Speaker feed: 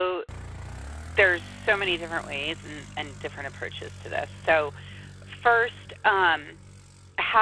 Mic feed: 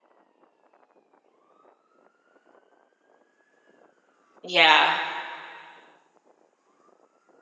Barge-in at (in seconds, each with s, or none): 4.4 s